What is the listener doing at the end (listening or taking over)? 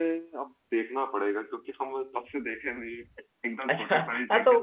taking over